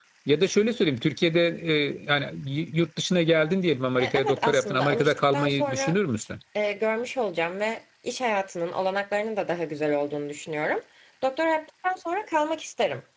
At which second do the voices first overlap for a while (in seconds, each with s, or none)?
4.0 s